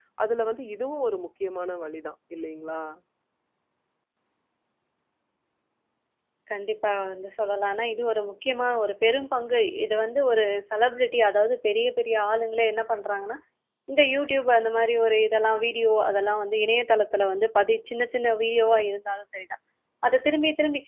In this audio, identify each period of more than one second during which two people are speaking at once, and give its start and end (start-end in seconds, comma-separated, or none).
none